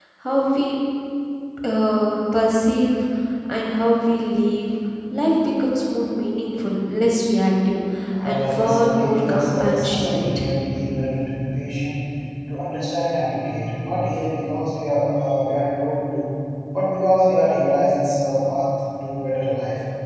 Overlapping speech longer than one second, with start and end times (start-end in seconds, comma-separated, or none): 8.2-10.5